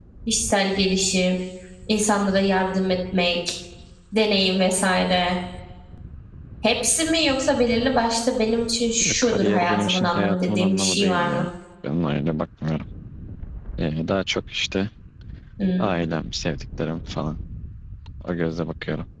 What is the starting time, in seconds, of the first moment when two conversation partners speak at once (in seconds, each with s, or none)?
9.0 s